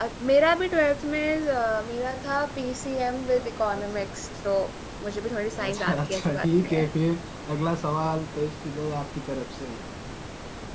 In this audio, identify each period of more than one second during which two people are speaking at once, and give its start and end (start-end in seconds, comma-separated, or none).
5.6-6.8